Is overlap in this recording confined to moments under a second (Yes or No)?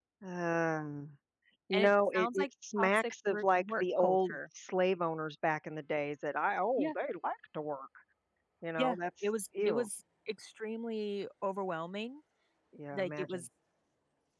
No